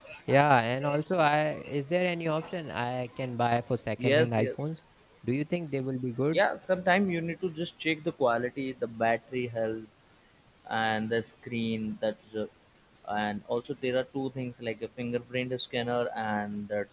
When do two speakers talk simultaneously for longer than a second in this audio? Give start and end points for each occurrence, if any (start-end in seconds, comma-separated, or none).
none